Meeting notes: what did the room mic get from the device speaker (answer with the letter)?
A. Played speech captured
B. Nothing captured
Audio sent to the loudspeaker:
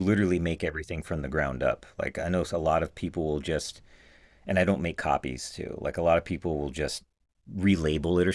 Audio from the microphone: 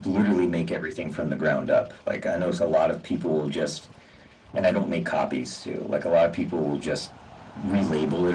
A